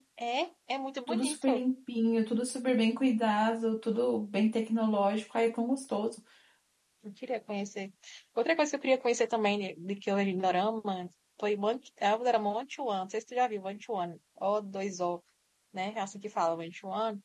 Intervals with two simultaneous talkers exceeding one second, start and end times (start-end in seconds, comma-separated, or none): none